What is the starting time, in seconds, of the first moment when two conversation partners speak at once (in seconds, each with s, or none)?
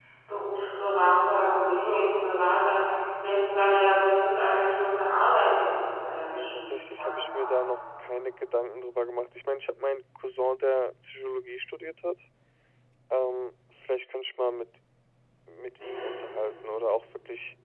6.2 s